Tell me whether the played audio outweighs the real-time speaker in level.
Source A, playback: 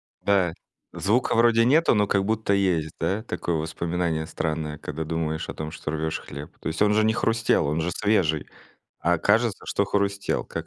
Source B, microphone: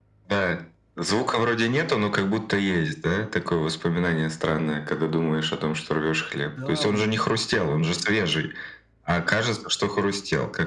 Yes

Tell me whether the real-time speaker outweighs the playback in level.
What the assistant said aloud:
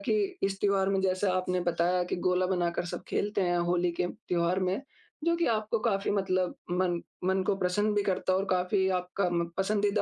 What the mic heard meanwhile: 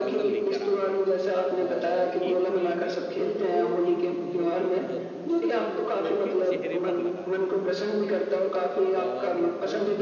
No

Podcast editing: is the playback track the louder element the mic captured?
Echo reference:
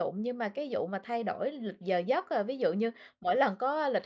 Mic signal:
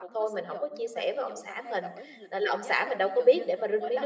No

